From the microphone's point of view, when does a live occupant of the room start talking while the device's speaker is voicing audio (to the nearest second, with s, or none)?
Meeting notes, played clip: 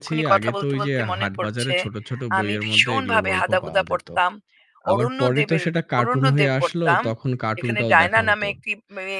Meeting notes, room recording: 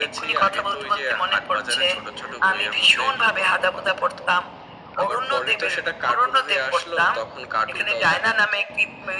none